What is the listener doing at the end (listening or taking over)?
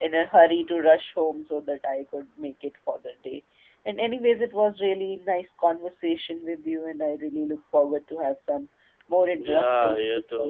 taking over